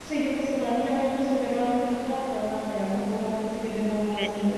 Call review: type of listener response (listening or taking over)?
taking over